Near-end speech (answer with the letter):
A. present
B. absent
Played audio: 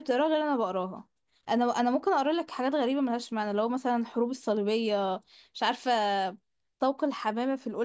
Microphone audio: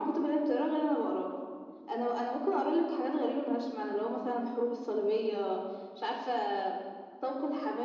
B